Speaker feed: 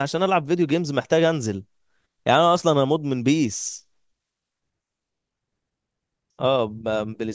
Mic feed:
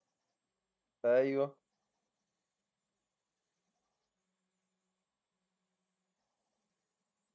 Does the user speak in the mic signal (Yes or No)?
Yes